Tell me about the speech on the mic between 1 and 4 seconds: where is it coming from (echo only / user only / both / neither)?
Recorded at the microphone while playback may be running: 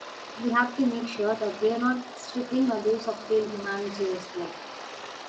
user only